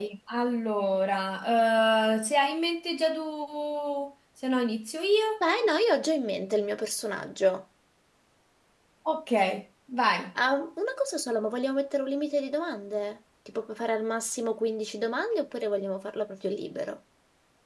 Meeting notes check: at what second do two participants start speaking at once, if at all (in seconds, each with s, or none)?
none